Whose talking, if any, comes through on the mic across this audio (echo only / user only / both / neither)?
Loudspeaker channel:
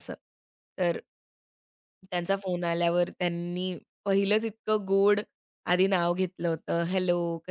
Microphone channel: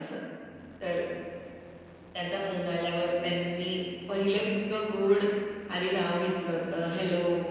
echo only